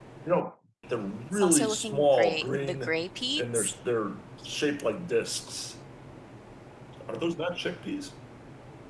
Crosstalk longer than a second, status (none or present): present